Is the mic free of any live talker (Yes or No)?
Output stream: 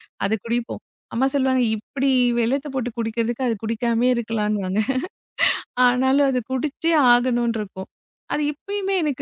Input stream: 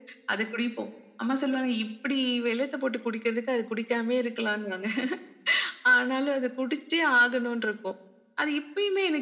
Yes